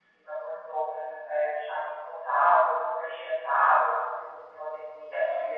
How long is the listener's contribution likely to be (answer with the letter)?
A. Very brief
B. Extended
A